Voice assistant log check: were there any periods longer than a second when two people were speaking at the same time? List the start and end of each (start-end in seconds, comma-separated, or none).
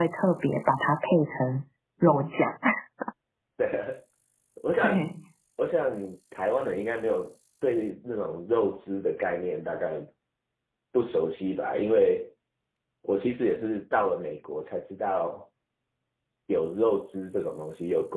none